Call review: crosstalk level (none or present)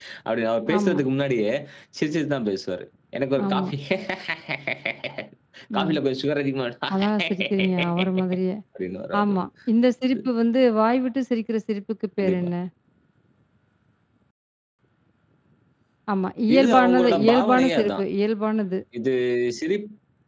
present